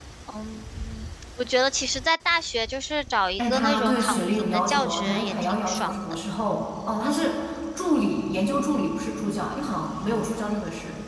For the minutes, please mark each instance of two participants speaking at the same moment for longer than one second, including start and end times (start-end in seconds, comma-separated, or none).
3.4-6.0